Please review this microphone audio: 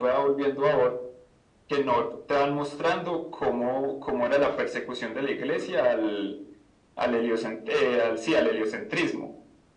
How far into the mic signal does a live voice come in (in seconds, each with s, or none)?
none